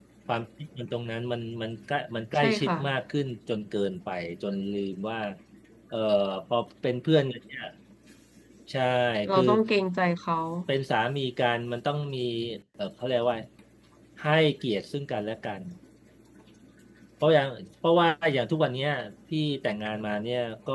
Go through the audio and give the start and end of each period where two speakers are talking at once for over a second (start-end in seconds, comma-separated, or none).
none